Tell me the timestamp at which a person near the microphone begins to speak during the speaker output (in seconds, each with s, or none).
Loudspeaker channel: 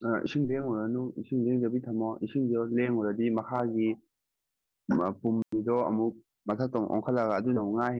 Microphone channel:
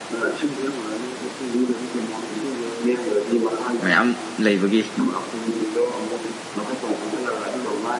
3.8 s